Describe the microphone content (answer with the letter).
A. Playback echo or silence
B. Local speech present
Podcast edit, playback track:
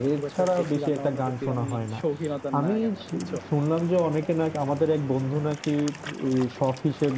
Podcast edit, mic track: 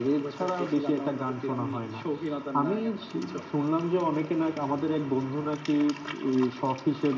A